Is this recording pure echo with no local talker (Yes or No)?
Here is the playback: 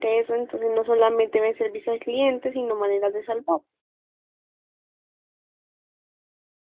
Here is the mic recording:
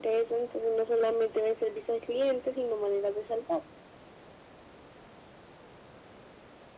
Yes